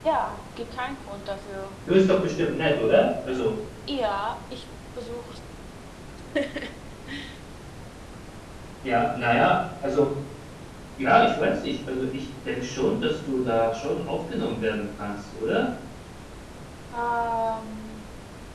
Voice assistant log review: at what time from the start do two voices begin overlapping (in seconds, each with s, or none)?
none